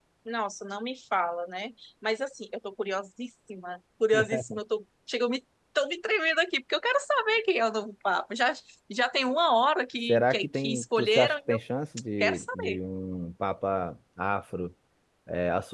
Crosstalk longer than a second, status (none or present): present